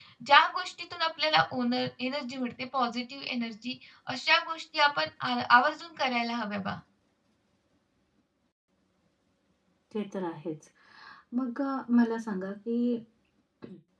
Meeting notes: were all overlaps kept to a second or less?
Yes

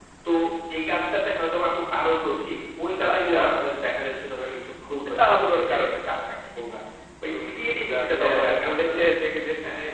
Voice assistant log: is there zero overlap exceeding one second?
No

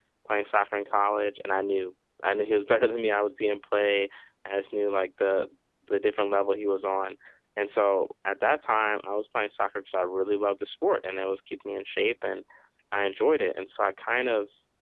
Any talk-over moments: No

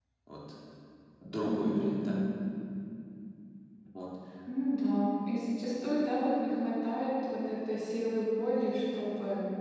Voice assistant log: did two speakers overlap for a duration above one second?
No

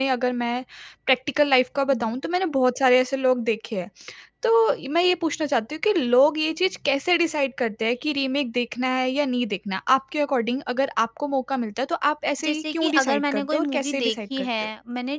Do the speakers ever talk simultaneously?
Yes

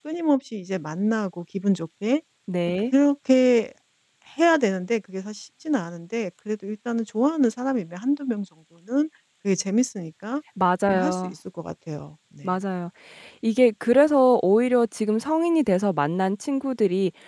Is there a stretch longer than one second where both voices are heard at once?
No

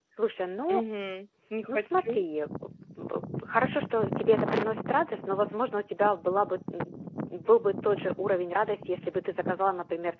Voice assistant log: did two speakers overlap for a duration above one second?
No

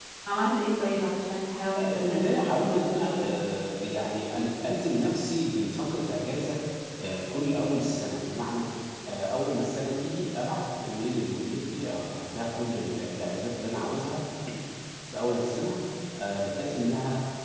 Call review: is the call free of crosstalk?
No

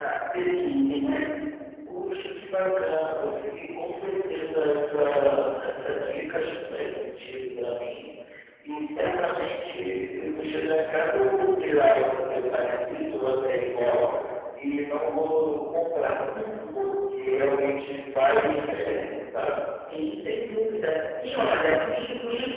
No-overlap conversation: Yes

